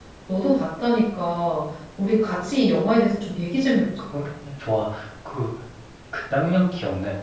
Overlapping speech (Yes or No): No